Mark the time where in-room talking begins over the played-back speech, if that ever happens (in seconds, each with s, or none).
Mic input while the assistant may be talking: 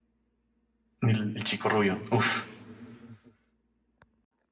1.0 s